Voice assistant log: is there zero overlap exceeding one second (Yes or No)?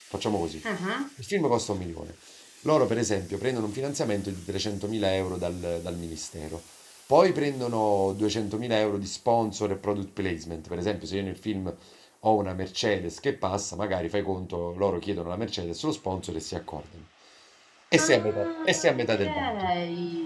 No